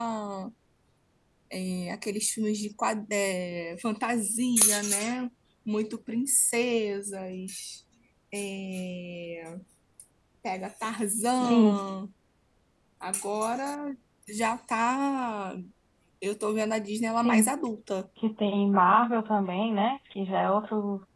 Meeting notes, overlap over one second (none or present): none